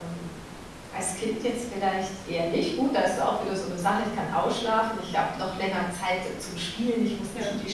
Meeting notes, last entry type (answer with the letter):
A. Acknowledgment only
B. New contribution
A